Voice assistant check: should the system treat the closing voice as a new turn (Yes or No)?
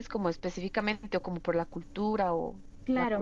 Yes